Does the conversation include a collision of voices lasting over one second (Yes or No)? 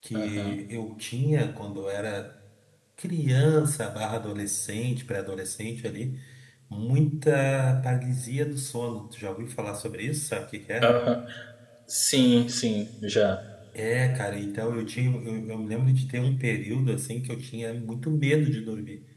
No